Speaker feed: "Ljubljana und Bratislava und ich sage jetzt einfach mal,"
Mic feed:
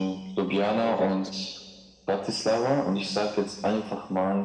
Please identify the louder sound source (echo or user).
echo